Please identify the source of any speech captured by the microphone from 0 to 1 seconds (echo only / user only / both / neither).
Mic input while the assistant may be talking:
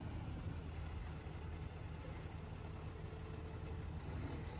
neither